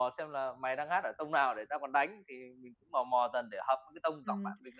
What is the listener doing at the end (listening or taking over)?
taking over